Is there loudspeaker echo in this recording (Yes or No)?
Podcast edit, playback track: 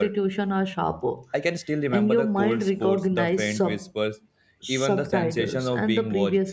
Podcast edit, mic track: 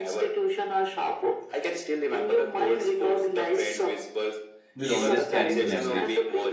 Yes